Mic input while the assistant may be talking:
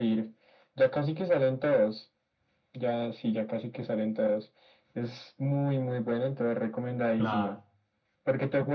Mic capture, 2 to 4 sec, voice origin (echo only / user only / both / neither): echo only